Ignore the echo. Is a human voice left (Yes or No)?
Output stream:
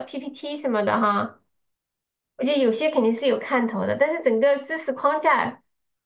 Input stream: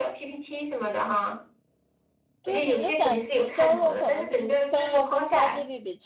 Yes